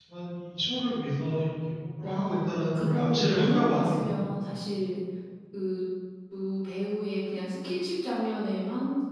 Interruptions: present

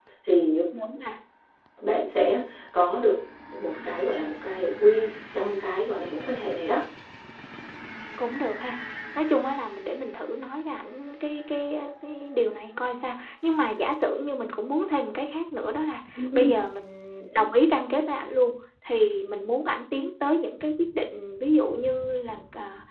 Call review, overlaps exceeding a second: none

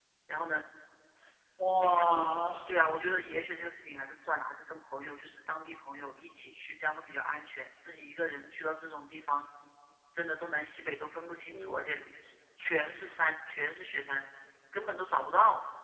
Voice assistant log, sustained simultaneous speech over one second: none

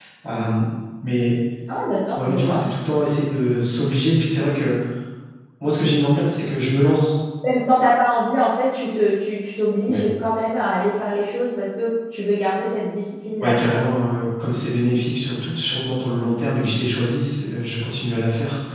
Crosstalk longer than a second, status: none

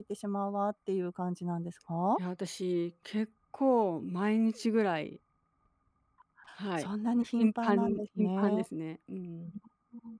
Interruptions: present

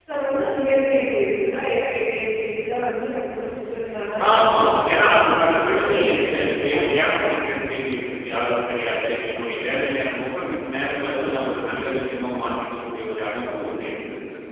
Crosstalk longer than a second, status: present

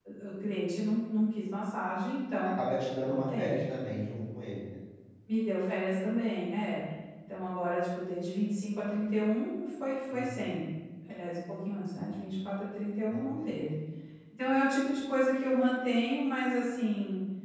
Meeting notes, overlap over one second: none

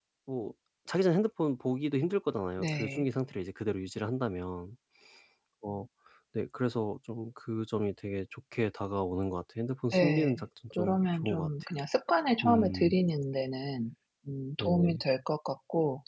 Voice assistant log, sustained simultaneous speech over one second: present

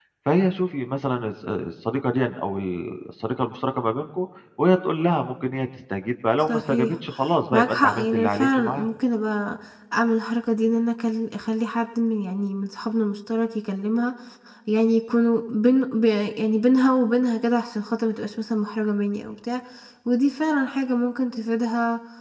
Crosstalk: present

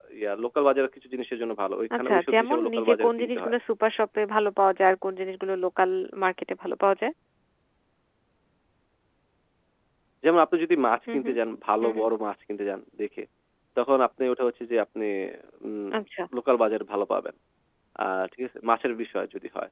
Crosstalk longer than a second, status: present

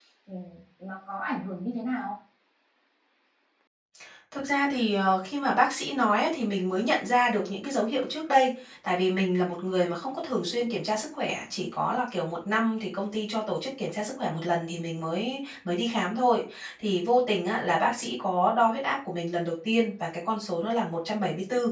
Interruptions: none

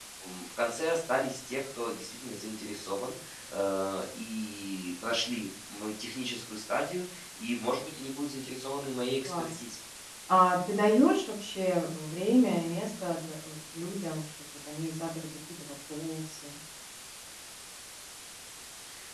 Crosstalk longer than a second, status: none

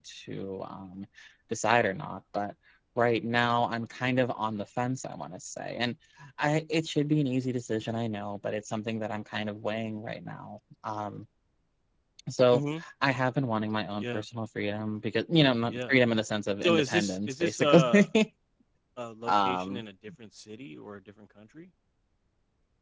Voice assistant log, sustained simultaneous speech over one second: present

